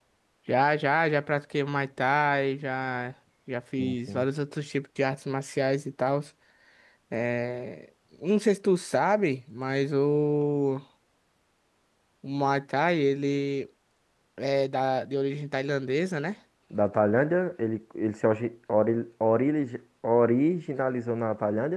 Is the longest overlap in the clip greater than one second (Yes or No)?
No